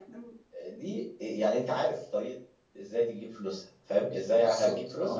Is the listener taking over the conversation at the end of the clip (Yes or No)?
No